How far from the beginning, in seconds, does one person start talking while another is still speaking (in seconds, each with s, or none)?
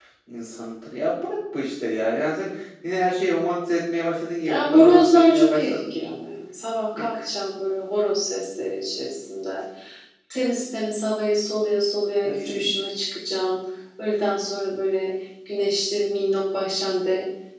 4.5 s